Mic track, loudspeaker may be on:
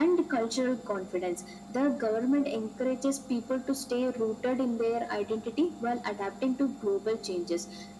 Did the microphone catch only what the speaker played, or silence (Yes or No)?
Yes